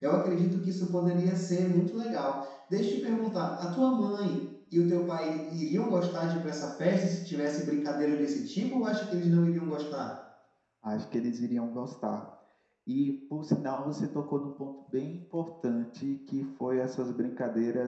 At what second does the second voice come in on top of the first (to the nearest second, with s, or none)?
none